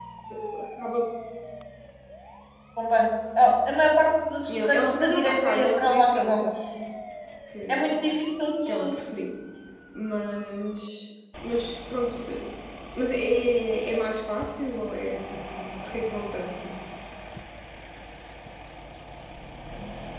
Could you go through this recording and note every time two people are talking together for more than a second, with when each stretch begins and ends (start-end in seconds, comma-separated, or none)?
4.5-6.5